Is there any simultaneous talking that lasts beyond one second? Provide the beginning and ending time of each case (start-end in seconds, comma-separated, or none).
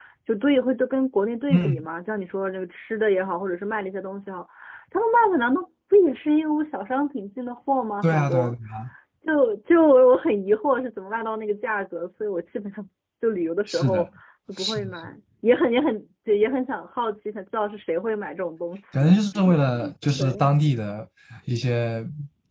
none